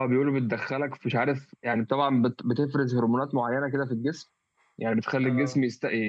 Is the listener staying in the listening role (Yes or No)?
Yes